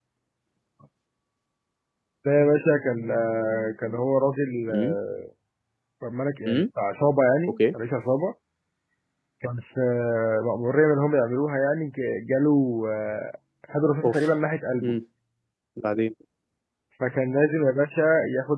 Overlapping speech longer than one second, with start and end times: none

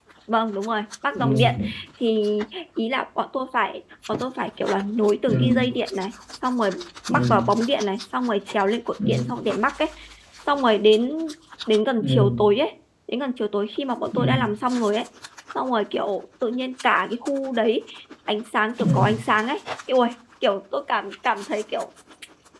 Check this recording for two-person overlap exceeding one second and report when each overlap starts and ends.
none

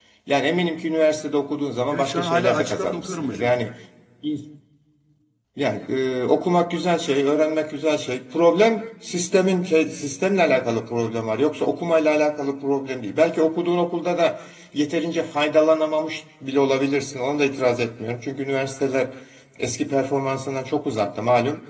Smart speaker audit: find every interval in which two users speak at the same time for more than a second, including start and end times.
1.9-3.5

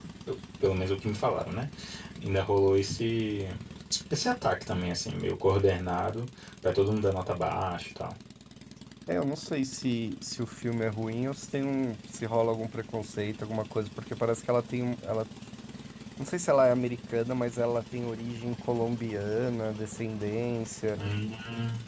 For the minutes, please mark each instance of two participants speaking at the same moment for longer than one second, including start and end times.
none

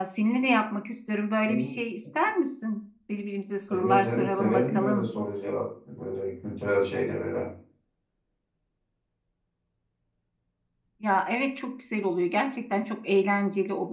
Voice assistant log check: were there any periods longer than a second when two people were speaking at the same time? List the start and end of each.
3.7-5.1

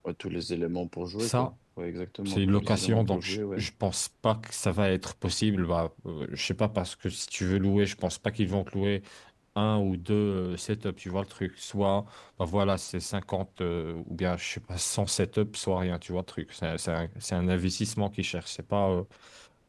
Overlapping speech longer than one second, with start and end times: 2.3-3.6

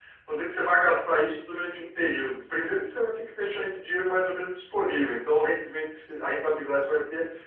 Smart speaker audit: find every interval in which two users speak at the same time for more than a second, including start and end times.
none

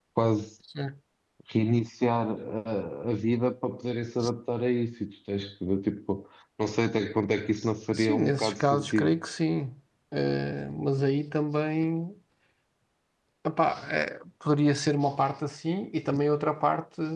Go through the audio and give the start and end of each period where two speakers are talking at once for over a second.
7.9-9.2

